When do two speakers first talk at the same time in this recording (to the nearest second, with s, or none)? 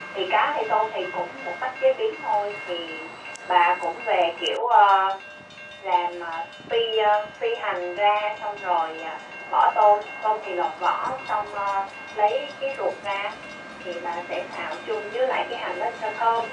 none